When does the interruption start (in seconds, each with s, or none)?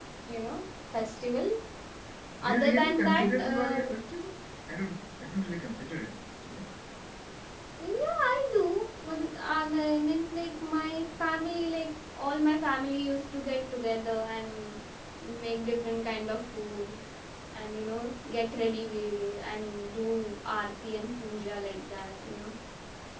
2.4 s